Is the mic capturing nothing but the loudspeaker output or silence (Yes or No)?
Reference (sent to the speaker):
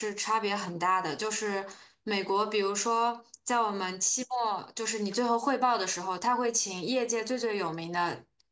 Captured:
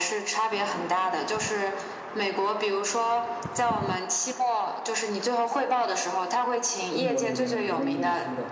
No